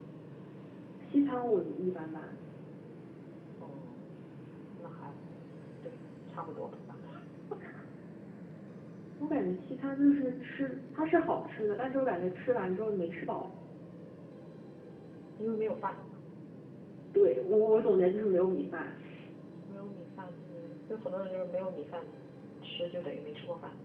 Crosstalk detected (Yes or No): No